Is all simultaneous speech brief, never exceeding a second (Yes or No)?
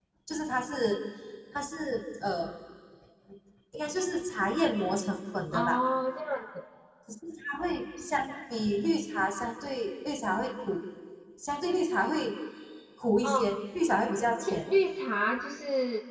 Yes